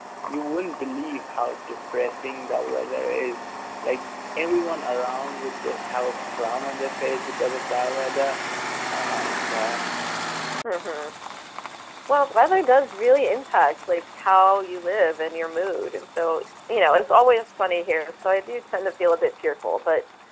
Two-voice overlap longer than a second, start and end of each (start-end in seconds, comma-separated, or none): none